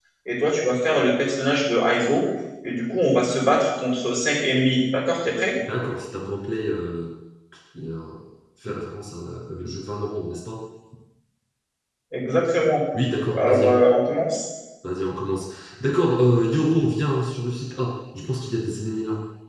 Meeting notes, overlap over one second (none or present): none